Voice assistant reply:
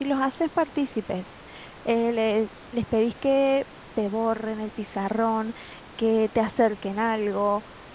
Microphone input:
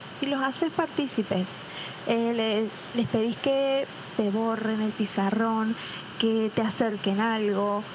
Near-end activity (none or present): none